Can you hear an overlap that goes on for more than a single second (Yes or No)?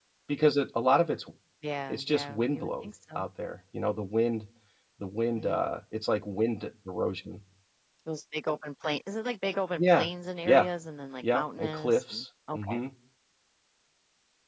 Yes